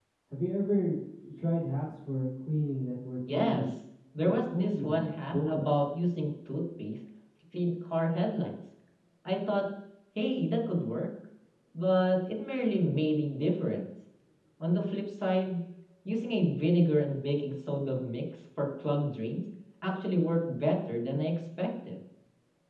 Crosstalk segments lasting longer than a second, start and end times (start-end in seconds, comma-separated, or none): 4.2-5.8